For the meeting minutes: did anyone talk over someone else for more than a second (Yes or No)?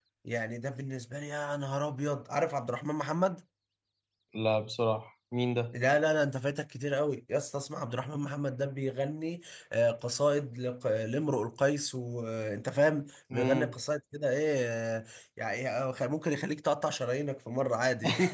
No